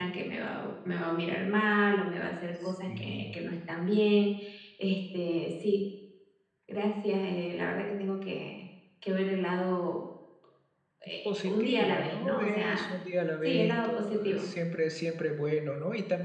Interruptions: present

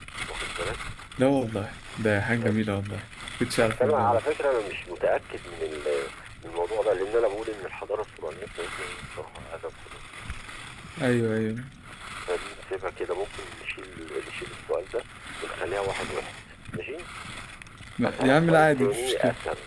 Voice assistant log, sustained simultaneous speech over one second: present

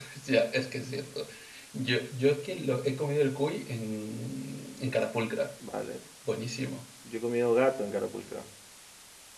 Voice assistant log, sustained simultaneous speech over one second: none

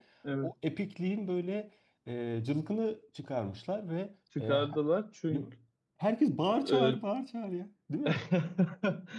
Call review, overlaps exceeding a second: none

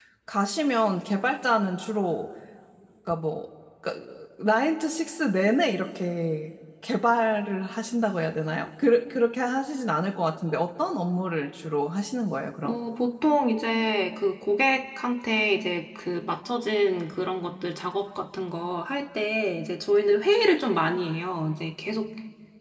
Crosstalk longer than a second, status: none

